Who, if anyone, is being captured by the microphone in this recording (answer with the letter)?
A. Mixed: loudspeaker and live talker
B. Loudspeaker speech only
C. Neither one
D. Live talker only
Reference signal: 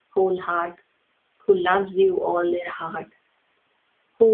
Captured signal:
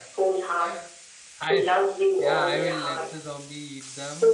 A